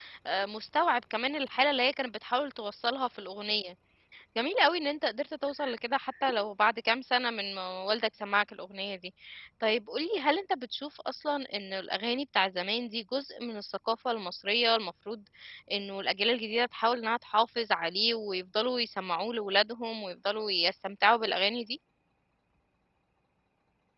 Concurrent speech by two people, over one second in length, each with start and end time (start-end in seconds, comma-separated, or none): none